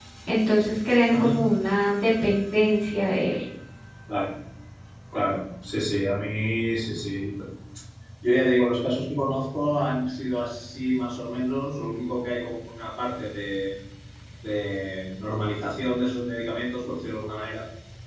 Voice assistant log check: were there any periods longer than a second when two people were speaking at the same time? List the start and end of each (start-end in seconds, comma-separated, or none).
none